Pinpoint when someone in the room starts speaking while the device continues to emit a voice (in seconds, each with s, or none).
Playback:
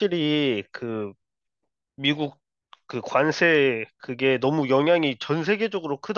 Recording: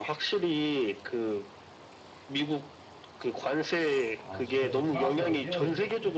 4.2 s